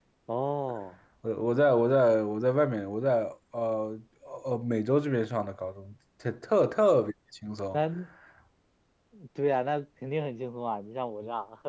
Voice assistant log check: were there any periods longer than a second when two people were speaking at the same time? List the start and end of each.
none

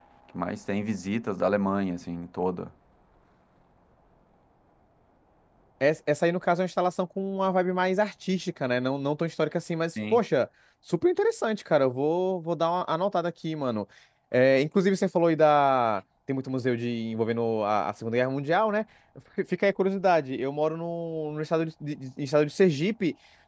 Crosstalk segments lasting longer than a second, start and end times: none

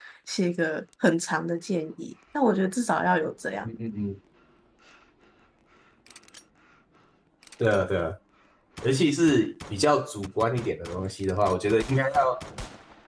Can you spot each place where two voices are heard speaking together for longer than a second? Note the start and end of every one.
none

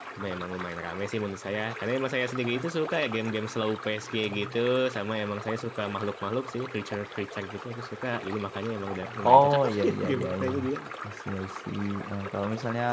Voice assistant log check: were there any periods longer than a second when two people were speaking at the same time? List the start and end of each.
9.2-10.5

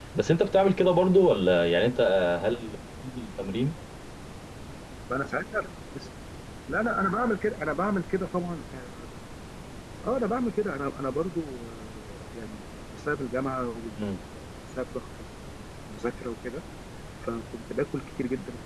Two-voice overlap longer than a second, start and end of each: none

